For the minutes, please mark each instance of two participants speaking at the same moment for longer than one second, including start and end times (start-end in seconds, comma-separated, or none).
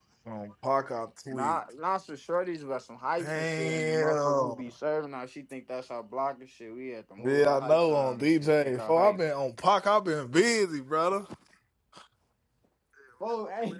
3.2-4.5, 7.2-9.2